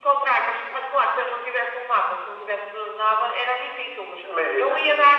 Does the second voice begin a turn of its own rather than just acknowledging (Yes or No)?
No